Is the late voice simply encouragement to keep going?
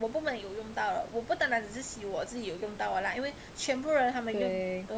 Yes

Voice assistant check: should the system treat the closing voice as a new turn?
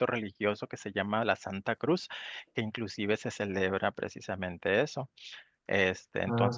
No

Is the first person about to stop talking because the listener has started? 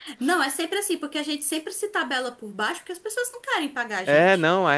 Yes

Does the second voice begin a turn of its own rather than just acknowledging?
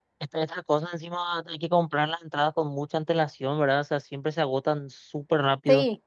Yes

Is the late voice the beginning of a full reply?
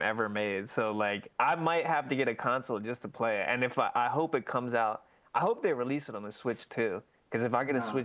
Yes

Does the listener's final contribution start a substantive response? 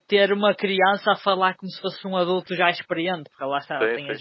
Yes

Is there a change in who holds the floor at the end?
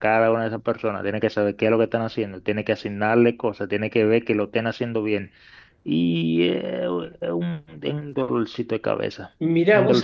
Yes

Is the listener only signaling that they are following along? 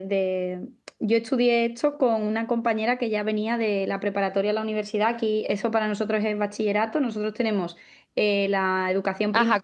No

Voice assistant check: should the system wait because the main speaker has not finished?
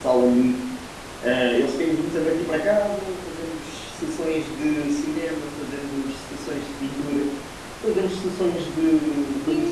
Yes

